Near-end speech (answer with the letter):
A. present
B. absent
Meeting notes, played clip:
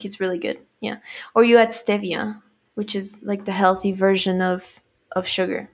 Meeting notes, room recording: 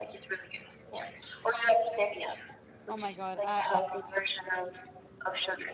A